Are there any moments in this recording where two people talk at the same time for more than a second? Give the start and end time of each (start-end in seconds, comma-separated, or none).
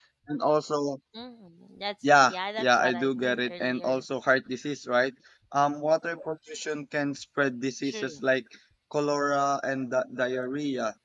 2.3-4.0